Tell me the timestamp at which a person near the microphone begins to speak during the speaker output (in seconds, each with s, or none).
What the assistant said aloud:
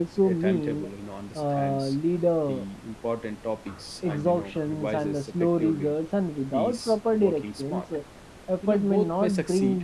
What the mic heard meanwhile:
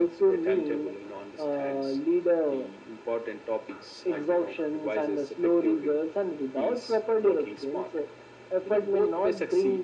none